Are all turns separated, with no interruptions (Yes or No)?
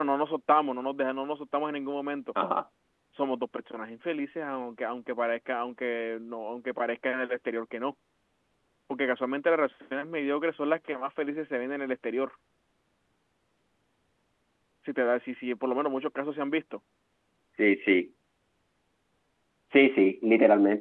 Yes